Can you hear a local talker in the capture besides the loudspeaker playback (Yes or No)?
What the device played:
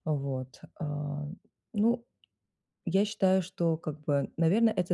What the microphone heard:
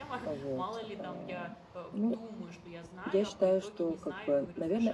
Yes